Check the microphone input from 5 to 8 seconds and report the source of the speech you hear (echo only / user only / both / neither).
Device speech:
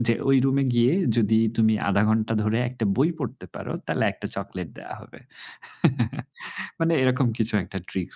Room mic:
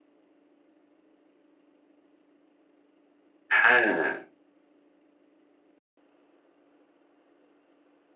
neither